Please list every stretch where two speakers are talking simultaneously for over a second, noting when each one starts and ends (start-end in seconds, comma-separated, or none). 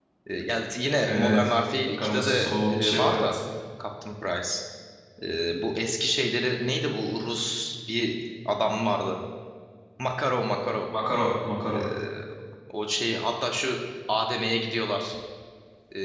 2.0-3.2